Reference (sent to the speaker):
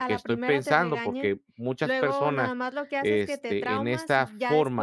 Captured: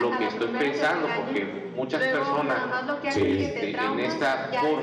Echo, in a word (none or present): present